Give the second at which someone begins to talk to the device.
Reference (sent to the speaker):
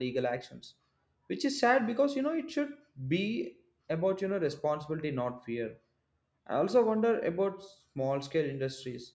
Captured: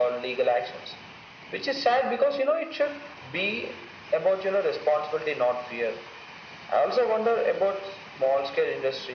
none

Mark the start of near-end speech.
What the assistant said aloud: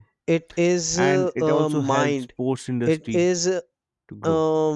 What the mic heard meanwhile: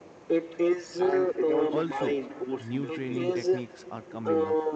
1.6 s

